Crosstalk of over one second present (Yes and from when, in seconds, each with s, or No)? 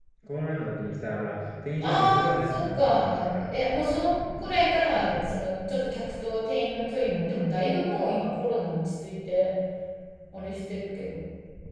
Yes, from 1.8 s